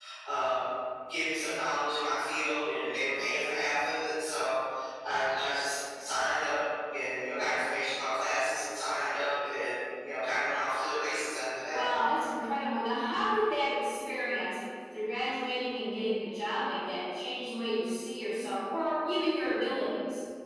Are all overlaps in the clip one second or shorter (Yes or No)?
Yes